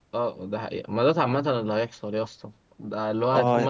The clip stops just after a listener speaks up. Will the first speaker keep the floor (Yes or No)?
Yes